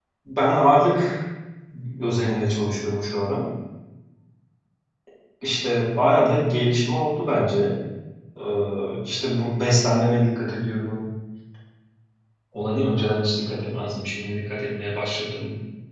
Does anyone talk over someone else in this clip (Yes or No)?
No